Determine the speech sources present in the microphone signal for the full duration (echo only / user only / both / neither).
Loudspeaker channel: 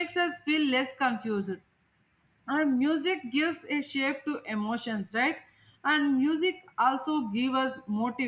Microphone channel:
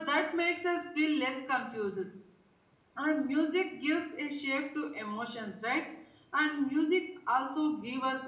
echo only